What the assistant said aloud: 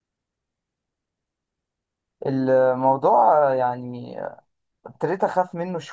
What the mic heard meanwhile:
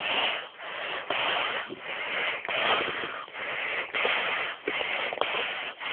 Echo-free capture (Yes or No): Yes